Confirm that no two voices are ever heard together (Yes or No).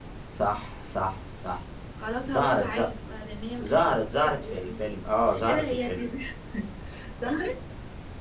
No